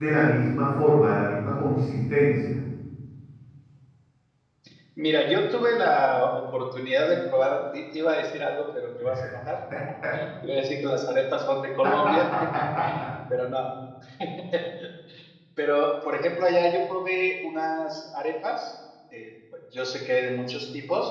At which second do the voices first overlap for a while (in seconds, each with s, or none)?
none